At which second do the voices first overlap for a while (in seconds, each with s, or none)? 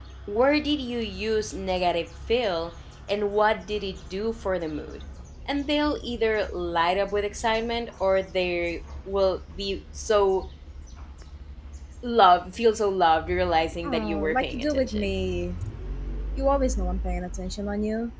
13.8 s